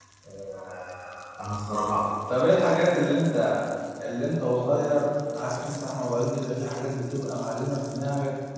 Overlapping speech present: No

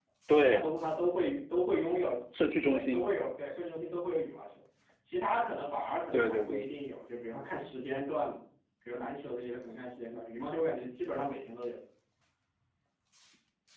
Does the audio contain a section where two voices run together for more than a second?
No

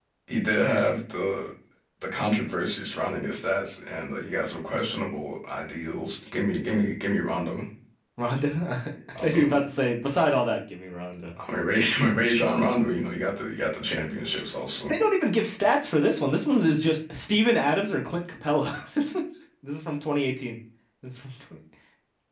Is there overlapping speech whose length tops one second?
No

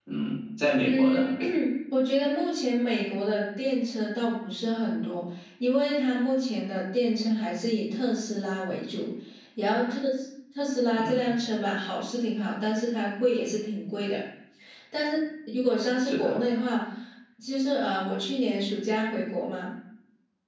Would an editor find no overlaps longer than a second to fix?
Yes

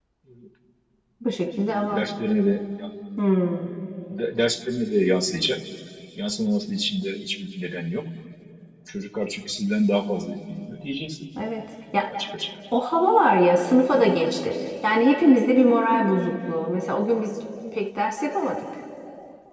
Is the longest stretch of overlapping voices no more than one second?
Yes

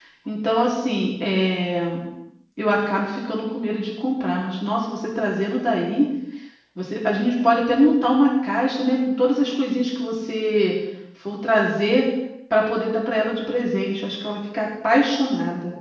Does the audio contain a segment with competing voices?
No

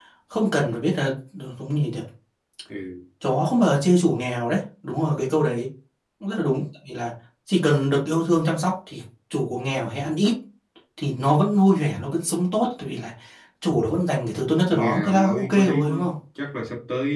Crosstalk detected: Yes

